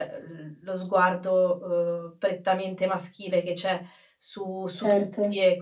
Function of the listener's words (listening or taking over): listening